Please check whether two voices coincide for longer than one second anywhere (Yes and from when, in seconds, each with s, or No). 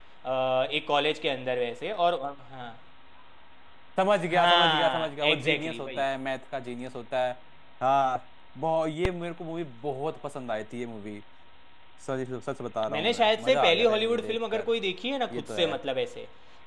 Yes, from 4.3 s